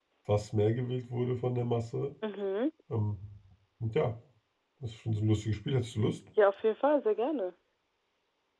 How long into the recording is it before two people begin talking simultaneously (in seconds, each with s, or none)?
none